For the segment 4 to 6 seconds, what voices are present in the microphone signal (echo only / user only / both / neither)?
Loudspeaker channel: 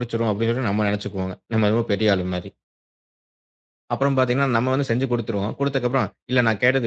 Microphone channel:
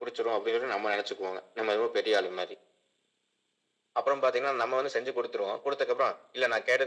echo only